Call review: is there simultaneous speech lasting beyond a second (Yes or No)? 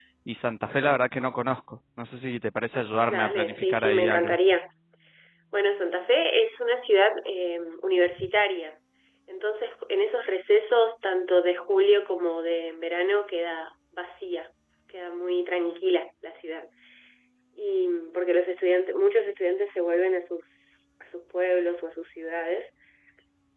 Yes